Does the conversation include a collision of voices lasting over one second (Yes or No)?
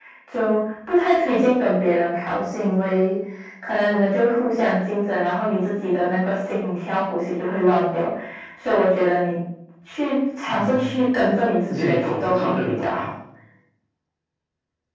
Yes